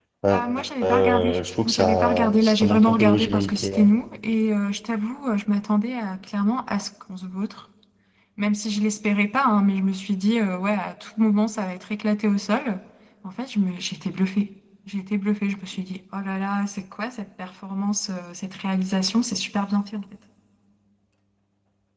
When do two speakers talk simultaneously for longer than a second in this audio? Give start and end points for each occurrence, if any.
1.7-3.8

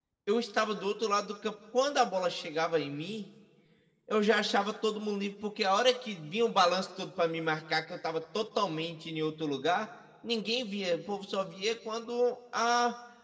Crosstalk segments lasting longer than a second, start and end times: none

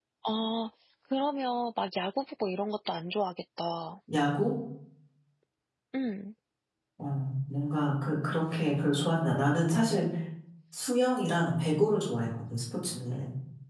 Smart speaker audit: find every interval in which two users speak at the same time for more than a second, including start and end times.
none

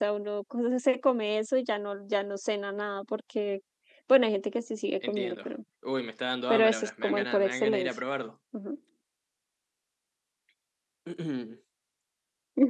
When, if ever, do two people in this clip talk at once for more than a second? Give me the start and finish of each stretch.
6.5-7.9

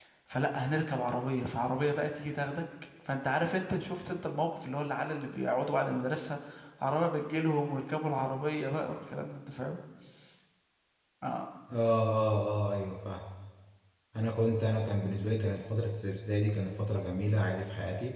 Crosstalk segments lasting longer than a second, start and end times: none

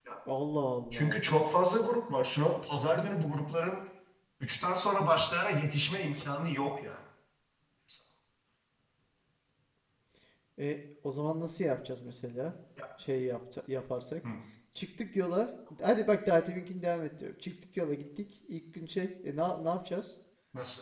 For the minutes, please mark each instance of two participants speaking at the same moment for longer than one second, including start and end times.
none

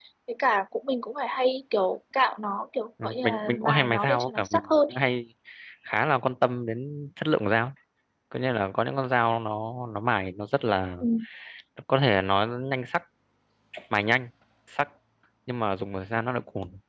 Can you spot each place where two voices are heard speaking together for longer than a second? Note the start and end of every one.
3.0-4.9

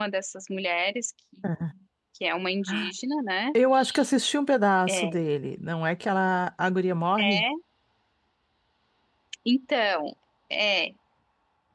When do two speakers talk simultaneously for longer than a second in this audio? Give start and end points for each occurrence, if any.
none

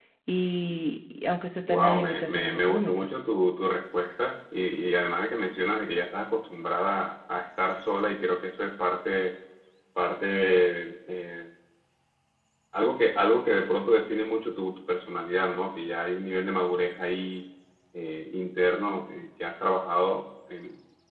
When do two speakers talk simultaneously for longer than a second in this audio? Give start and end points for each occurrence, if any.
1.7-3.1

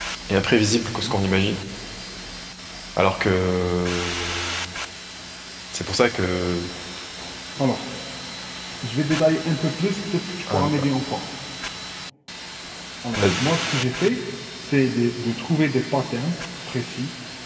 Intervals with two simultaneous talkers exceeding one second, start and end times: none

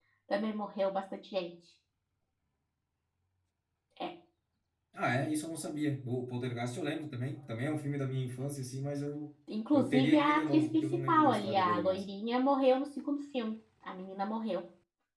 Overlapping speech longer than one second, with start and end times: 9.7-12.1

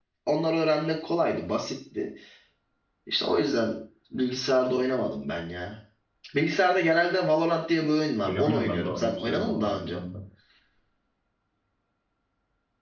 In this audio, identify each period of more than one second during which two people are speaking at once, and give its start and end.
8.2-10.0

